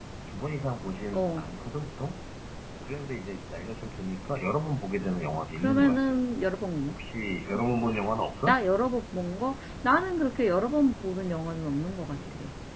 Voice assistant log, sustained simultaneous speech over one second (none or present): none